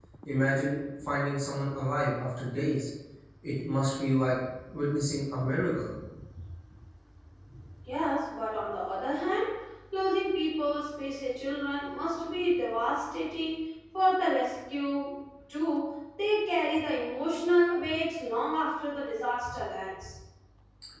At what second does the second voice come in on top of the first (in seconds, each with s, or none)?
none